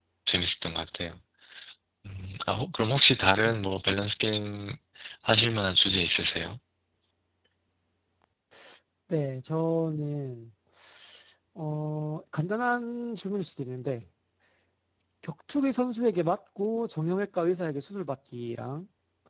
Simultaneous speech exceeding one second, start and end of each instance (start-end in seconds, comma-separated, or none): none